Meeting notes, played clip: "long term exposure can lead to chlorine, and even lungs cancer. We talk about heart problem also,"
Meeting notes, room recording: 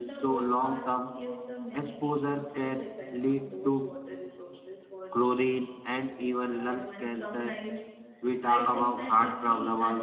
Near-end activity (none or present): present